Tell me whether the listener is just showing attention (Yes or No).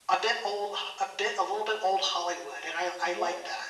No